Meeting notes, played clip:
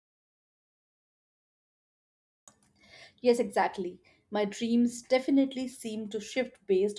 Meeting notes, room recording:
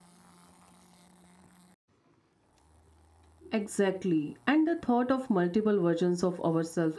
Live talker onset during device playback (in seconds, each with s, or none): 3.5 s